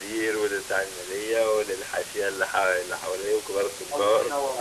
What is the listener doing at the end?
taking over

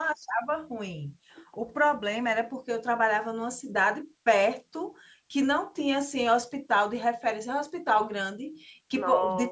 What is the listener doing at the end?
listening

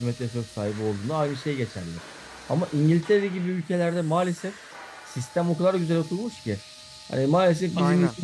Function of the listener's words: listening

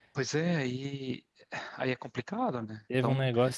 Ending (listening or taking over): taking over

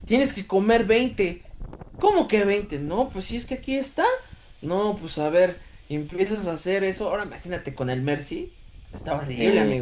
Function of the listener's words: taking over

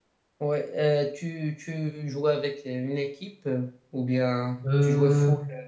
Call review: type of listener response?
listening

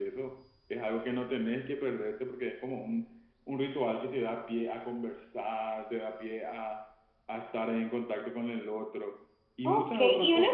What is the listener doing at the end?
taking over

